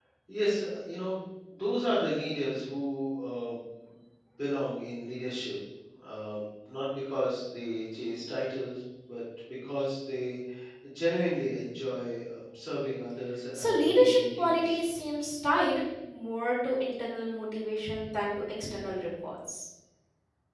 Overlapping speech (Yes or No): Yes